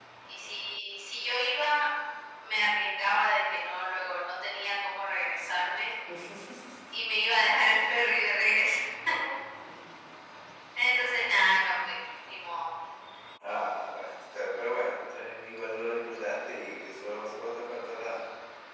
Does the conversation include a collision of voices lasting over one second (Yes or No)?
No